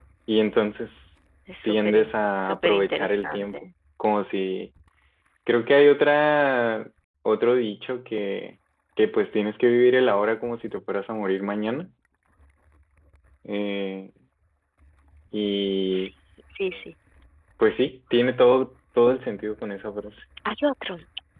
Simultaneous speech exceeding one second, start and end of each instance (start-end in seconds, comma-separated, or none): 1.6-3.7